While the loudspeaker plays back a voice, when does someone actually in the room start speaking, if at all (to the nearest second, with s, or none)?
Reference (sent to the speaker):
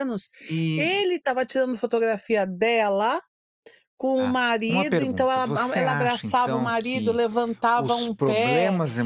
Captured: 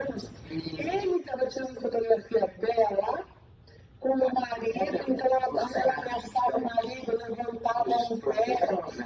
none